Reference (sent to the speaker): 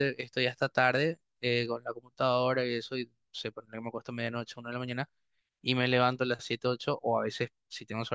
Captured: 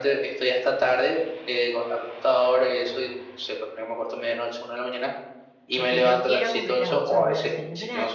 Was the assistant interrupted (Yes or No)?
Yes